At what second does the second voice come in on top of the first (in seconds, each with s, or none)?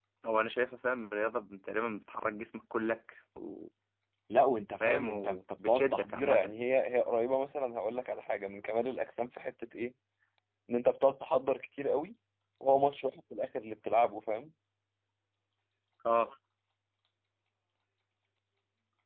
4.8 s